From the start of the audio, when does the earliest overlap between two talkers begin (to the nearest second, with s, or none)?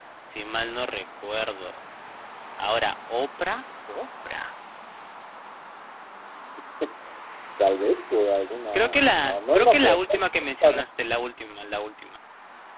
9 s